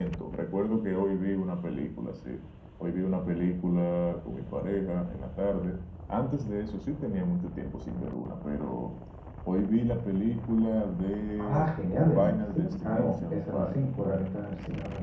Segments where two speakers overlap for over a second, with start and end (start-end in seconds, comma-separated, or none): 12.2-13.7